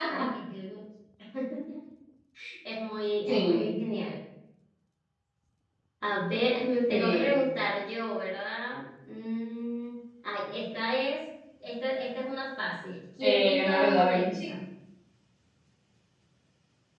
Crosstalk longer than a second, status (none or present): present